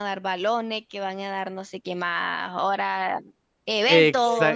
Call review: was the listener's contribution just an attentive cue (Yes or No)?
No